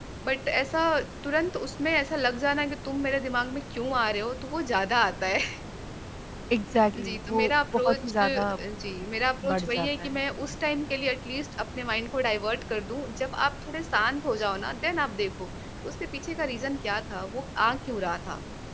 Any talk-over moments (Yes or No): Yes